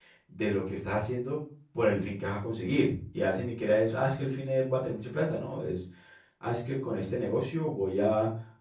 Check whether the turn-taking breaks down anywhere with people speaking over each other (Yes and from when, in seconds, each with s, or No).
No